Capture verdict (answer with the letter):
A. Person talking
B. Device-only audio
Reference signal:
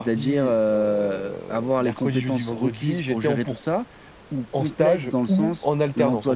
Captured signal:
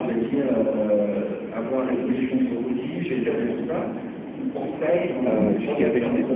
A